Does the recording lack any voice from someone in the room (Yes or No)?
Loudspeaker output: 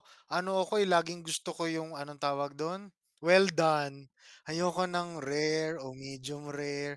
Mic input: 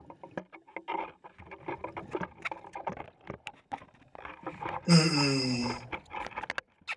No